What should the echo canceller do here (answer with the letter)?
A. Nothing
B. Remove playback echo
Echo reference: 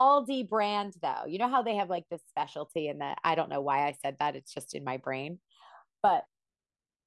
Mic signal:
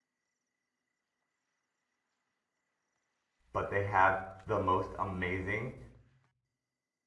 A